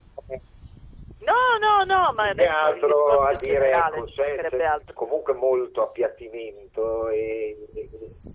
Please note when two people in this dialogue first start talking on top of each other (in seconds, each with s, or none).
2.2 s